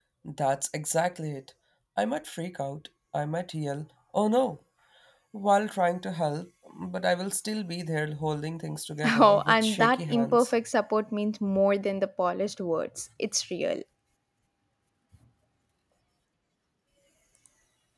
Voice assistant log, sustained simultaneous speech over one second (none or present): present